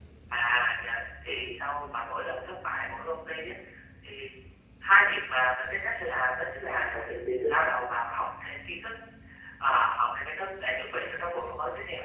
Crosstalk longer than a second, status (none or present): none